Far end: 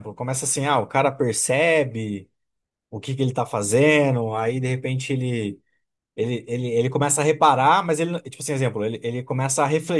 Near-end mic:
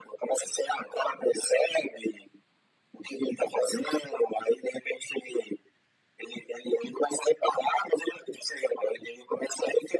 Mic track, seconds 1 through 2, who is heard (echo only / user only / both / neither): echo only